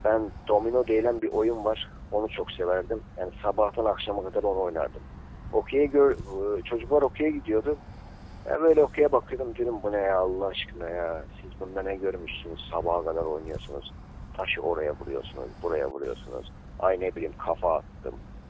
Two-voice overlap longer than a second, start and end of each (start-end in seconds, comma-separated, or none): none